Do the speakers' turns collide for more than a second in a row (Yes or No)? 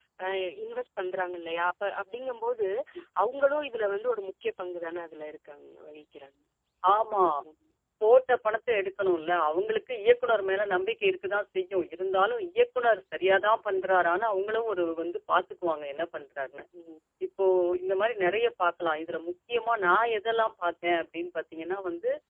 No